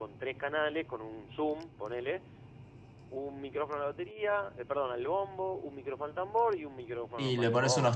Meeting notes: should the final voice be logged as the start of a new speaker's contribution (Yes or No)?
Yes